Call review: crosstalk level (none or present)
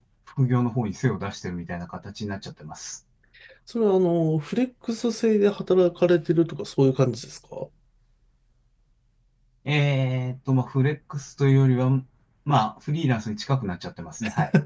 none